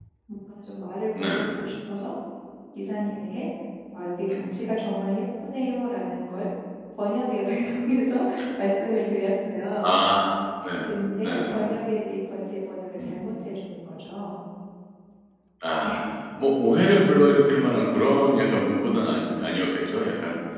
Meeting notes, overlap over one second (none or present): none